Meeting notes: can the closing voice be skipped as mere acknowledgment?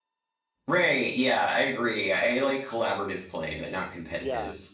No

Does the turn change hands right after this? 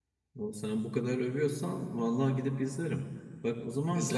No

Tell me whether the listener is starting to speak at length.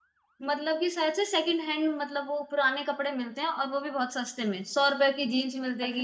Yes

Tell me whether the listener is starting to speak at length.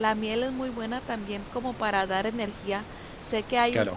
Yes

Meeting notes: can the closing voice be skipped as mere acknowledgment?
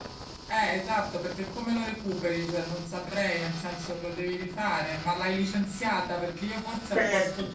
Yes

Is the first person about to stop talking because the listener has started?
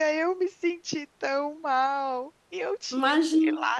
No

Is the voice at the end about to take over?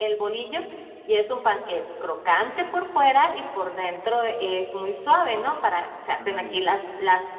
No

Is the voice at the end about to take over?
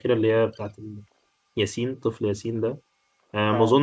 No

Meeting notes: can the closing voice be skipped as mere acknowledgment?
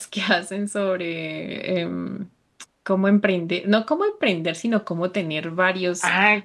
No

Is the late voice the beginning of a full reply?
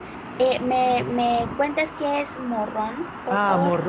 Yes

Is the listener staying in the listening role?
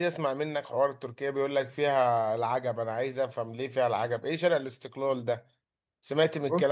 Yes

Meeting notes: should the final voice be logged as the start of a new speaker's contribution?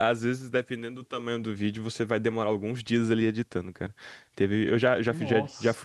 No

